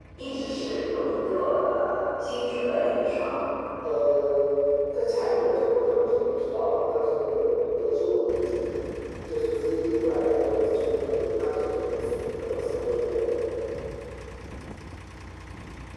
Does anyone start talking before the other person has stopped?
No

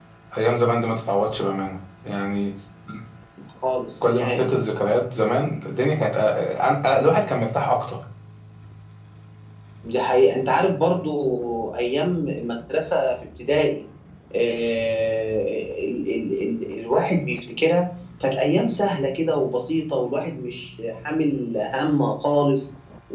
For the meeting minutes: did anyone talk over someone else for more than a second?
No

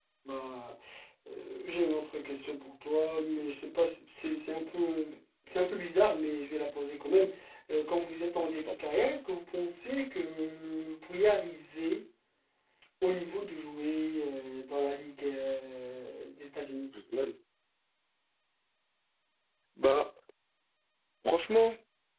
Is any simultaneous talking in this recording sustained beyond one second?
No

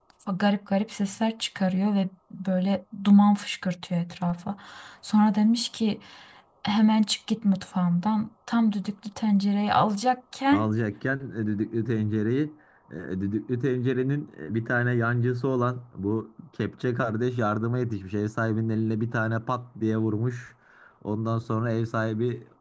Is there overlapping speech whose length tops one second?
No

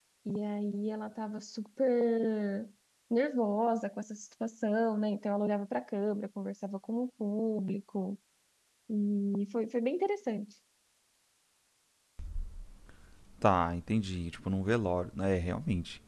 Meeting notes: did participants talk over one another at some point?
No

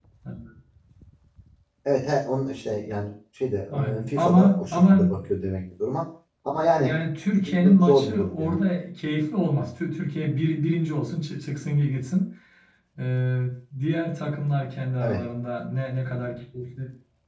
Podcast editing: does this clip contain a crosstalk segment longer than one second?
Yes, from 3.7 s

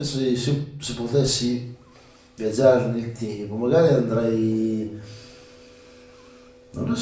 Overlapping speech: No

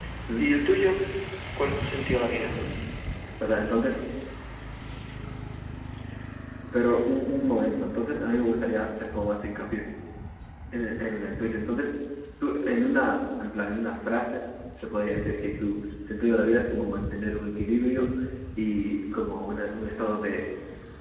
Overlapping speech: No

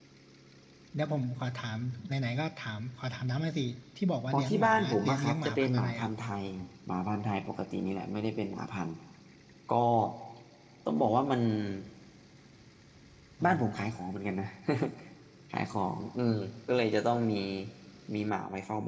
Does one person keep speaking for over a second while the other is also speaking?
Yes, from 4.3 s

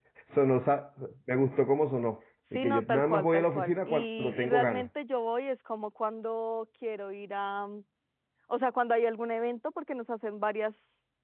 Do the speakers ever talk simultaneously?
Yes, from 2.5 s

